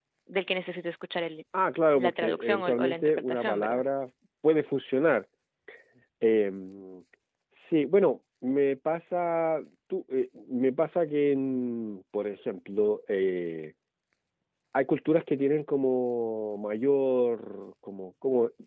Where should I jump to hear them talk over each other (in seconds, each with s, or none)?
2.0 s